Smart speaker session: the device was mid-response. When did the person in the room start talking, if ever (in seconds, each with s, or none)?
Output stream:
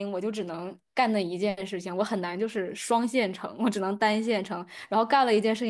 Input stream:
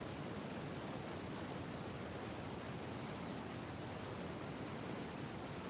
none